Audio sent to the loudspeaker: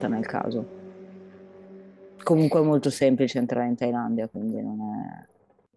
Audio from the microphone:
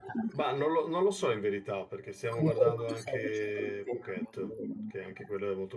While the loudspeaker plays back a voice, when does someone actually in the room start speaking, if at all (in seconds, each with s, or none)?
0.3 s